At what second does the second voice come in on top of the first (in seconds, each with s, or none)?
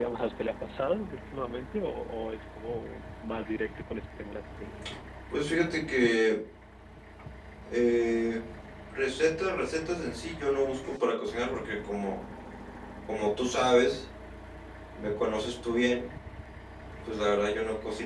none